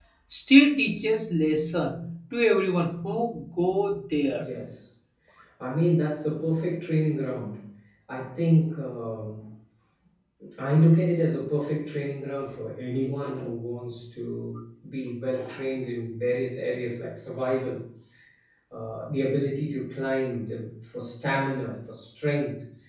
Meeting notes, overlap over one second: none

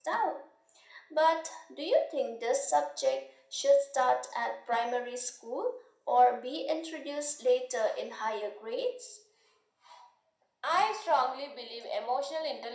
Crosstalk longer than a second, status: none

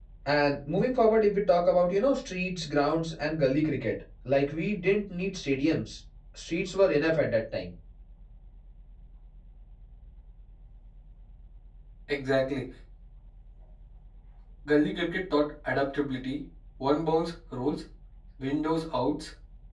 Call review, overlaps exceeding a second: none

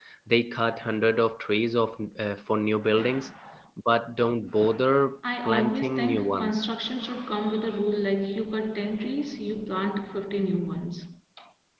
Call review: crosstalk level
present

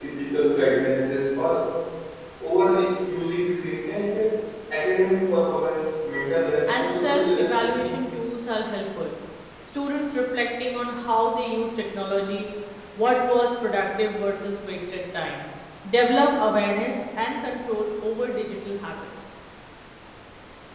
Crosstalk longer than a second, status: present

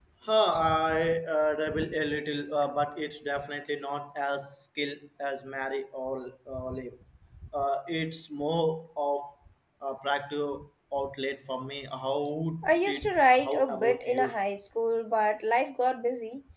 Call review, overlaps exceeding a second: present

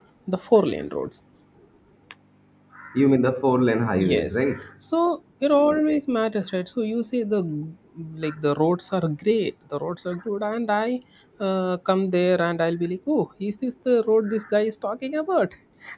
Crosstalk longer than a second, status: none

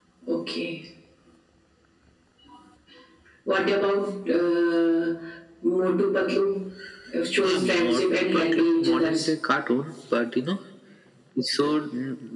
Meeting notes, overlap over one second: present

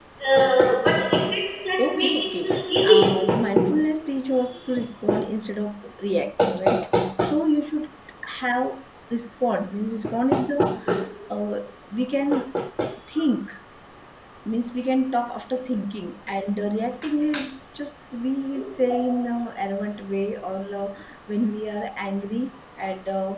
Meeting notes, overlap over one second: present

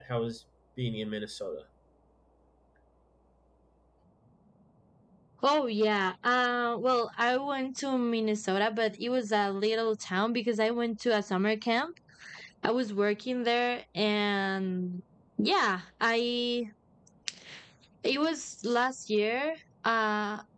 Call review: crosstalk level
none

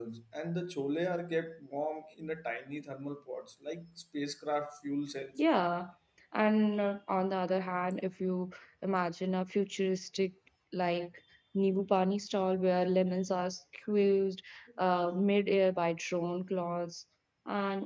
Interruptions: none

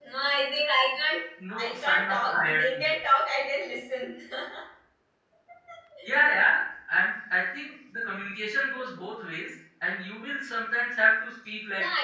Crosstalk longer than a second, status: present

